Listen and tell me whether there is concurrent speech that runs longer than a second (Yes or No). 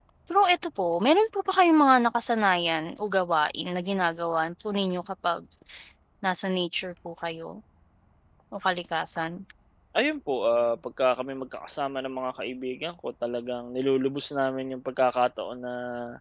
No